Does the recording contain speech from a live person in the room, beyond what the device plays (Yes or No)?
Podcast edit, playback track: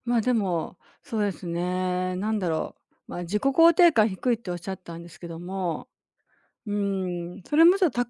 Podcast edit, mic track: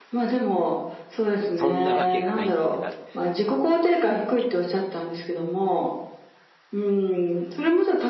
Yes